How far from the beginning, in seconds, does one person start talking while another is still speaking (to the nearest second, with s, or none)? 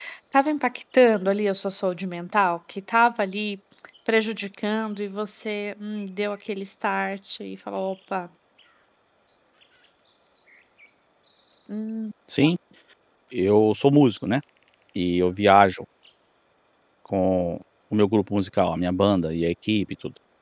none